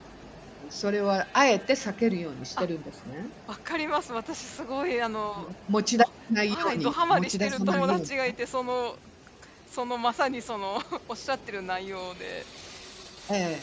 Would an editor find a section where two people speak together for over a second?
Yes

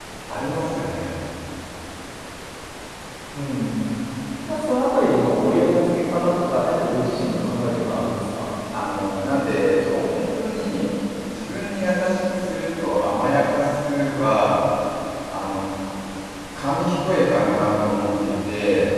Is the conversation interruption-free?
Yes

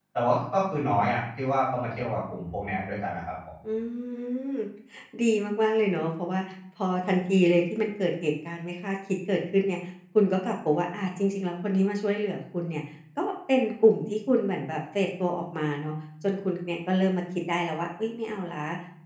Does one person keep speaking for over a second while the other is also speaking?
No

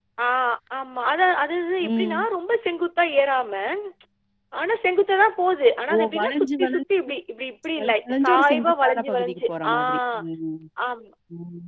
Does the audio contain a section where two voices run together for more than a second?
Yes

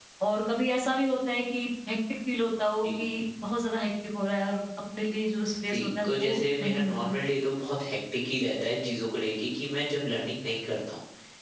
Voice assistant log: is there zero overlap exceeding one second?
No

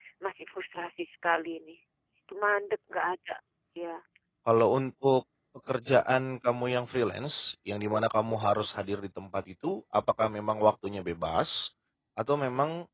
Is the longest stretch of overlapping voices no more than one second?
Yes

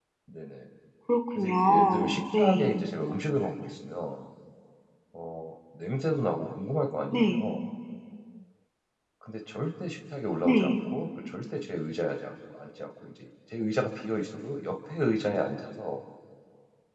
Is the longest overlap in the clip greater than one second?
Yes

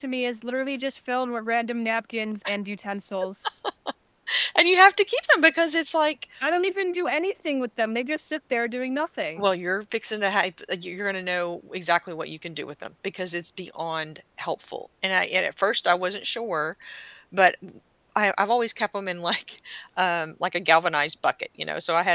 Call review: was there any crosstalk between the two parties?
No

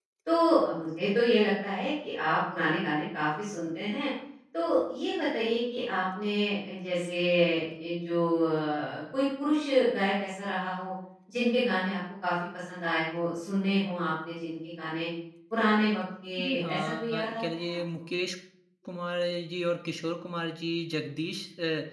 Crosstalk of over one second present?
Yes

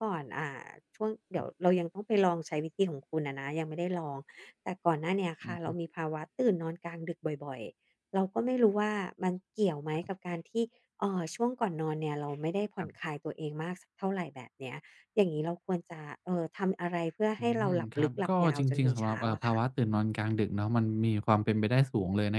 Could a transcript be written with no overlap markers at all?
No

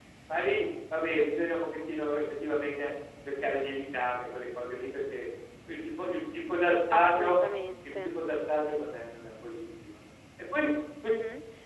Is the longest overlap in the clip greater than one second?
No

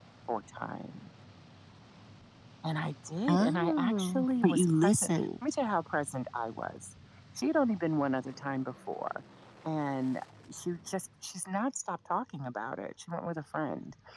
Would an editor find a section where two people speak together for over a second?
Yes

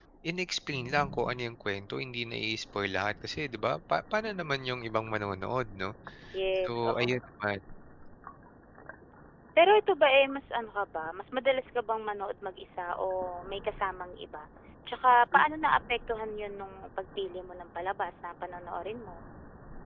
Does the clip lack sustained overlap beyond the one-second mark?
Yes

